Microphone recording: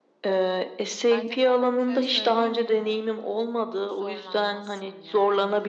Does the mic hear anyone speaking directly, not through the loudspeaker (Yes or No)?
Yes